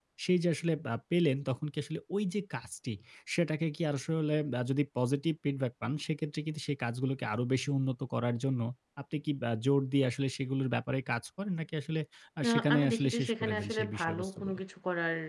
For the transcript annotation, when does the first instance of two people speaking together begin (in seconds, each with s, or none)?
12.5 s